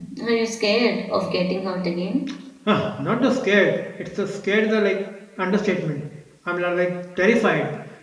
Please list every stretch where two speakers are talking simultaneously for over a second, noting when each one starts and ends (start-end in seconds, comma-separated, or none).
none